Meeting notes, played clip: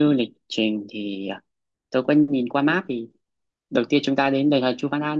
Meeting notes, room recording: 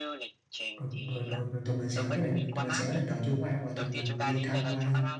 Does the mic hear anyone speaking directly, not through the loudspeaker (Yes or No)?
Yes